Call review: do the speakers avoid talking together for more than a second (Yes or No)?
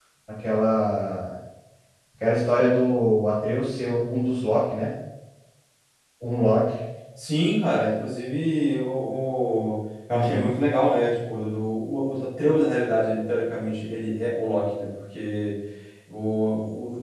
Yes